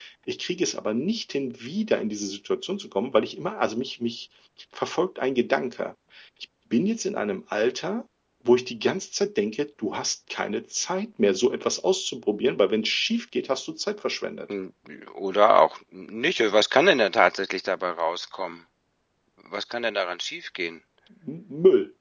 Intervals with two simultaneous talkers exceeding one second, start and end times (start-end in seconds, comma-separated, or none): none